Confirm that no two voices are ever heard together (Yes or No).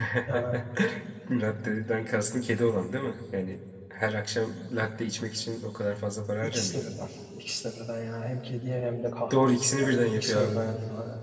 No